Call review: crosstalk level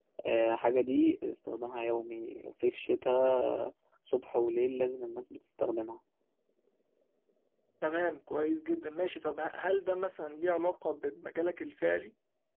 none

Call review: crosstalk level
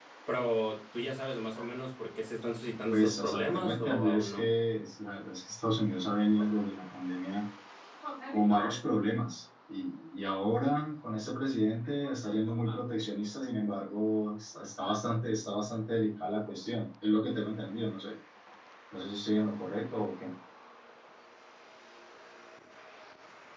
present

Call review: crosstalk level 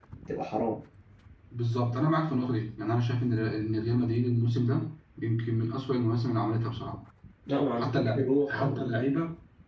present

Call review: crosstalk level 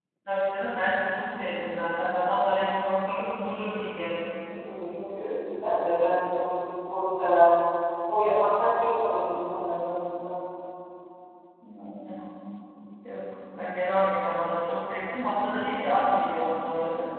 none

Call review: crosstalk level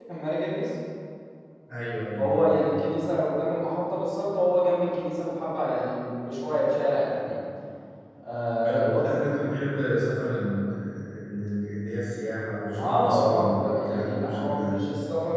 present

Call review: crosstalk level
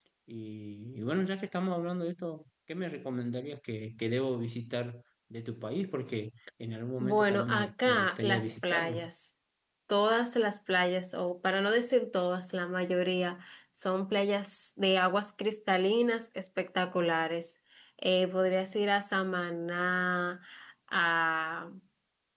present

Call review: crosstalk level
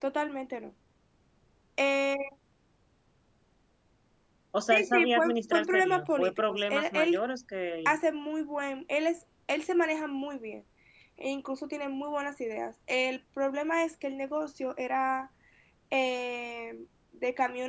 present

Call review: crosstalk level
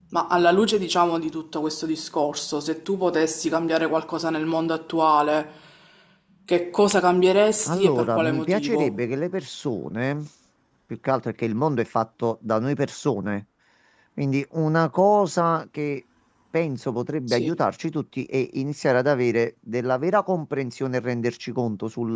present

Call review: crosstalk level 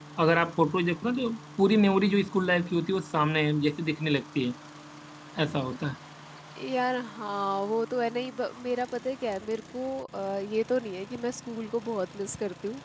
none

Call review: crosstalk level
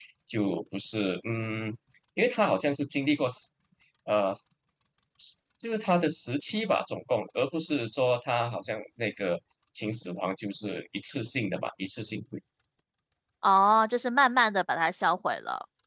none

